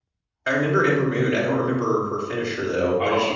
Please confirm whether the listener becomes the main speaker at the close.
Yes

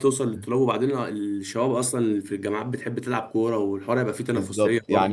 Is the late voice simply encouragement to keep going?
No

